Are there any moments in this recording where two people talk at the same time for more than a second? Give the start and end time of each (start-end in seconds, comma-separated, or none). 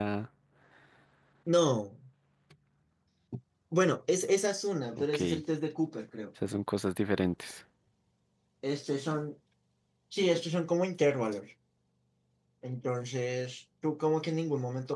none